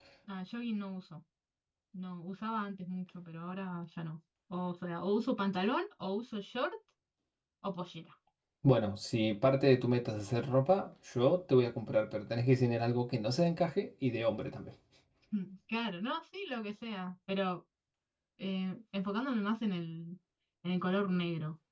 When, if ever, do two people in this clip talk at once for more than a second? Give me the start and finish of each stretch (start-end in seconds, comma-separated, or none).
none